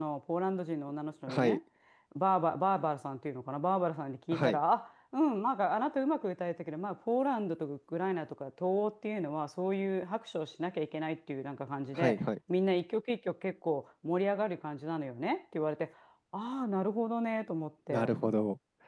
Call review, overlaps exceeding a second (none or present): none